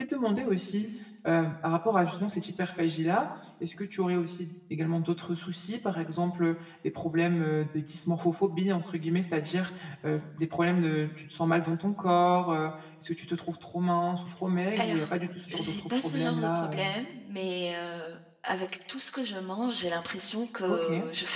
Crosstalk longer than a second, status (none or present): present